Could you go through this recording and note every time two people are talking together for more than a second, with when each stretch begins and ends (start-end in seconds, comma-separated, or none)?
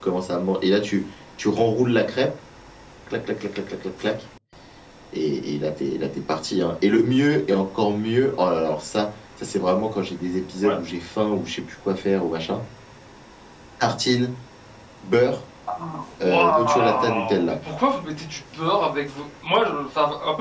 16.2-17.5